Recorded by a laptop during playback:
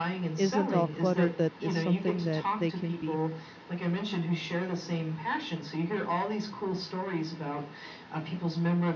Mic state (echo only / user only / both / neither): both